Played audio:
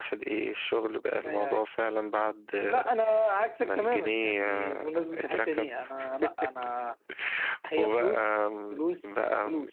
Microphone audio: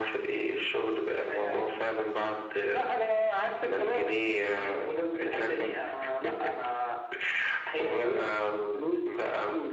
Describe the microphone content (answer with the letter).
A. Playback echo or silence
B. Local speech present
A